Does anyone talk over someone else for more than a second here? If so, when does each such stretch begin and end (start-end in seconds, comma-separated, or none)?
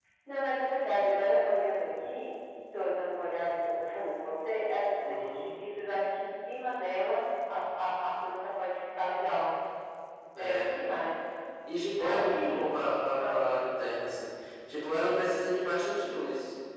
12.0-13.4